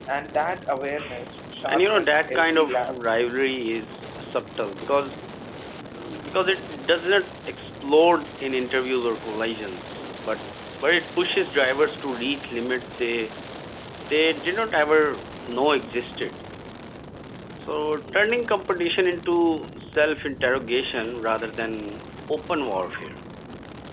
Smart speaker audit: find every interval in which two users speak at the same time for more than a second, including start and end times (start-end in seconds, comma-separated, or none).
1.7-3.0